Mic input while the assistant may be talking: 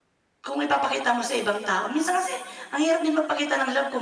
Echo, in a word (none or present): none